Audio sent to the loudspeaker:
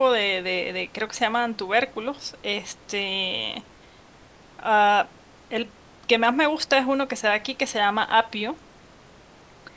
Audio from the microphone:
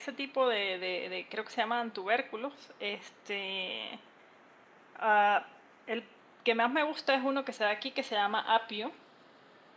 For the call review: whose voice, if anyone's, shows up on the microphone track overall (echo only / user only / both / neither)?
echo only